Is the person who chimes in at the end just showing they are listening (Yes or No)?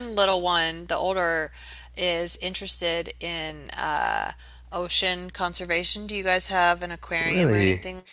No